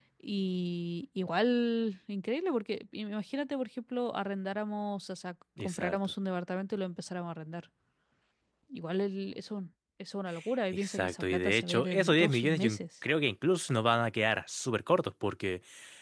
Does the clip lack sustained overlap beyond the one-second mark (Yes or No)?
No